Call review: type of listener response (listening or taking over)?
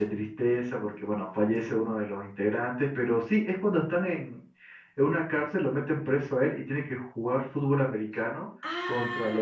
taking over